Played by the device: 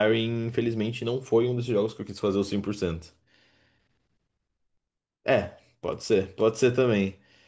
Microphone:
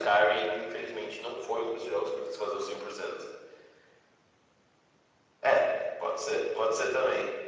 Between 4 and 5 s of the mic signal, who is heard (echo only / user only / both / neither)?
neither